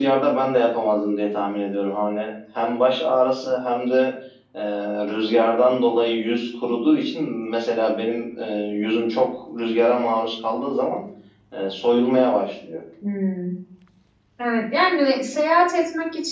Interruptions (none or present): none